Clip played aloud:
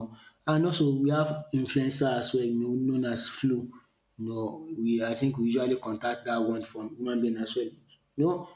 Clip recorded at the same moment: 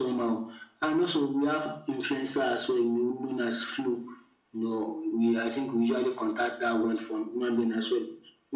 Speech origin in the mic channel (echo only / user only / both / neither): echo only